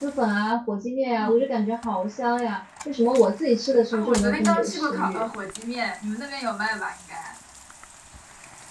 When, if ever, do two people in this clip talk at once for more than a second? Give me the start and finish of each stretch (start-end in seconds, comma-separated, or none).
3.9-5.3